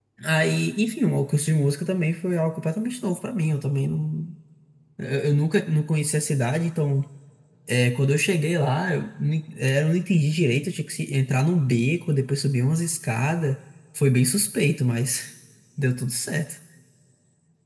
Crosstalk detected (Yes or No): No